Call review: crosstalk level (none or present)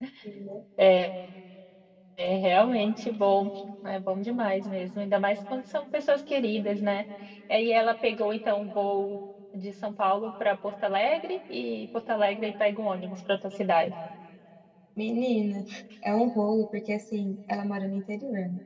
none